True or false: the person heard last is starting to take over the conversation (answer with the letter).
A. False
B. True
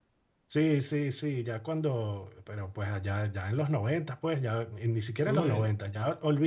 A